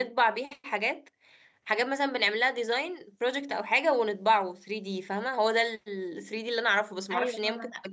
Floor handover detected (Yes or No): Yes